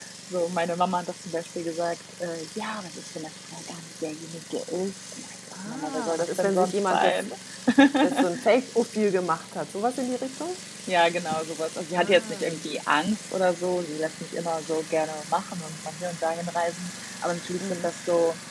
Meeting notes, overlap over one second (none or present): present